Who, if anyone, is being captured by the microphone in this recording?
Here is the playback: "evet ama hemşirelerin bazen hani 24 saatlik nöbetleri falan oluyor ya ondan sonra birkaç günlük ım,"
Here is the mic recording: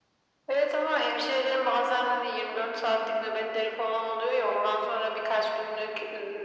echo only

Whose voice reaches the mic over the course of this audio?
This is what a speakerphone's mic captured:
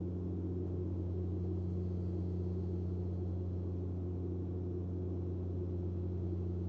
neither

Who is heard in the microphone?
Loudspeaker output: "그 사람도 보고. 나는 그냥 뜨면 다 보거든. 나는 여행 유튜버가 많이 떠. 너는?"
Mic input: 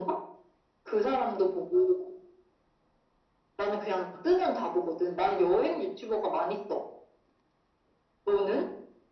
echo only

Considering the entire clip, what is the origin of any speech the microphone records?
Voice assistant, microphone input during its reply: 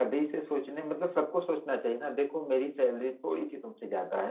user only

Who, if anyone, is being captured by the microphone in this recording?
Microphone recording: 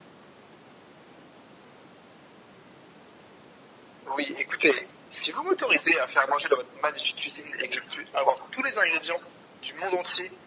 echo only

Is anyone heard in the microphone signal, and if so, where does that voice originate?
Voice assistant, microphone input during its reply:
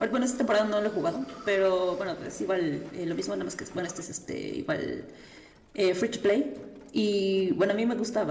user only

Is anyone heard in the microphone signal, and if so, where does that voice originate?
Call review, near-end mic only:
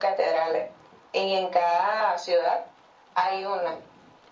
echo only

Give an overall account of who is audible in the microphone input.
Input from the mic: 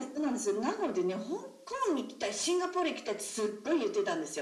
echo only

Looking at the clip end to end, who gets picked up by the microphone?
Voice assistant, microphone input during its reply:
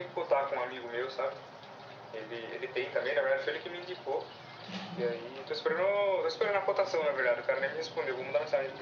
echo only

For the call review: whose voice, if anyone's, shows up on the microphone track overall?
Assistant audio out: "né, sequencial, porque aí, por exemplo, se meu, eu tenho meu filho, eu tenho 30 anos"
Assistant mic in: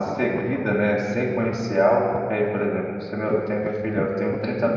echo only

